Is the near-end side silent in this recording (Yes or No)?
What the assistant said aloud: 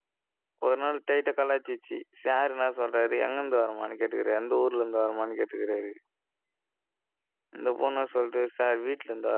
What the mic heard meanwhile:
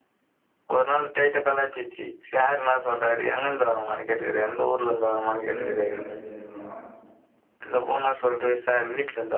No